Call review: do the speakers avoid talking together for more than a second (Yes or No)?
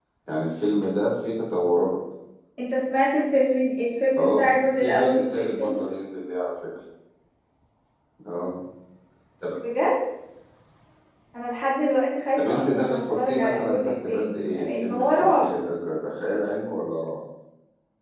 No